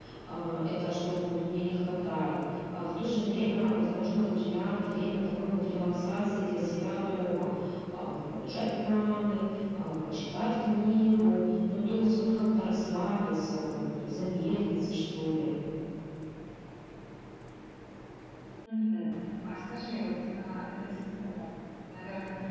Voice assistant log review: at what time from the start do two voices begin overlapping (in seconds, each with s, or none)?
none